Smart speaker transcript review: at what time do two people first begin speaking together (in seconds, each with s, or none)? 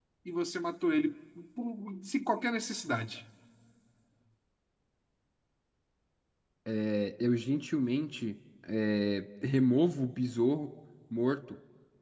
none